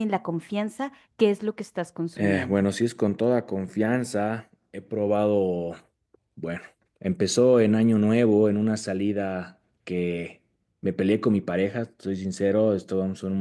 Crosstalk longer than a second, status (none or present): none